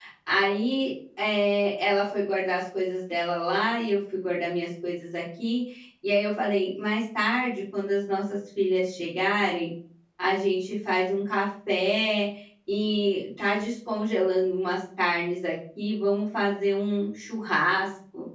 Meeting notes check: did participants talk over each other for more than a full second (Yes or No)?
No